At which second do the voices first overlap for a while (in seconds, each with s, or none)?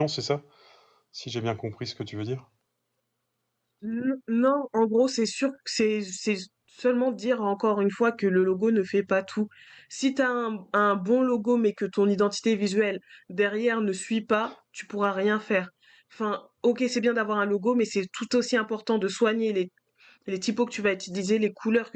none